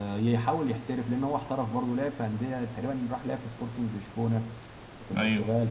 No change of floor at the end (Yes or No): Yes